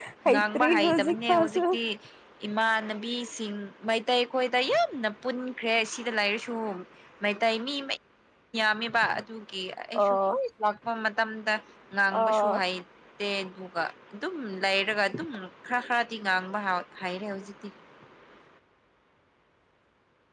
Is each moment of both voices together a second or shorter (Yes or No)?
No